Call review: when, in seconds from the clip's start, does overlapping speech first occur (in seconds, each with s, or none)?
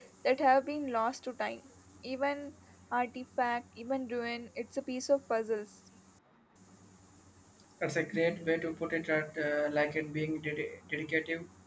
none